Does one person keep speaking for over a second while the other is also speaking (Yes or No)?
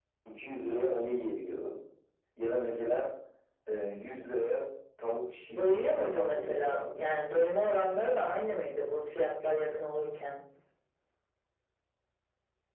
Yes